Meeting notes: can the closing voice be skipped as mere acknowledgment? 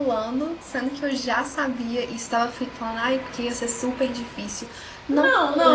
No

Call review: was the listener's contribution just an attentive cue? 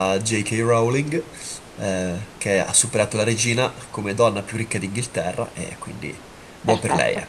No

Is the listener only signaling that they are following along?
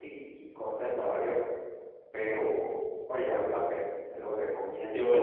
No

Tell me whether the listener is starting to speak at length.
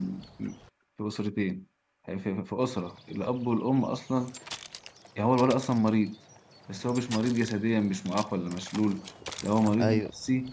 No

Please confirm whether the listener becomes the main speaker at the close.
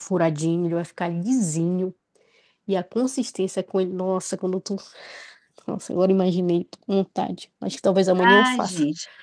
Yes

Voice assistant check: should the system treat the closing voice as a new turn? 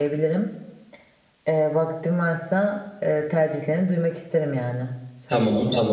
Yes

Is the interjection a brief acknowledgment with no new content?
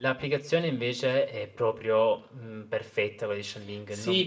No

